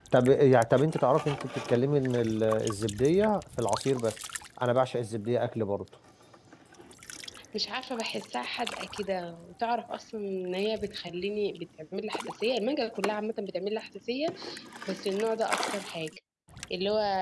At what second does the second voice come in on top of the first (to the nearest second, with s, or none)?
none